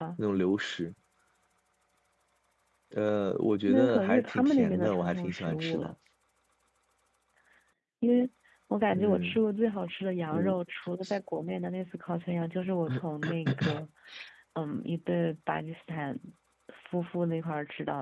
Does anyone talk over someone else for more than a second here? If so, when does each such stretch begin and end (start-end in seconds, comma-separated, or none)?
3.7-5.9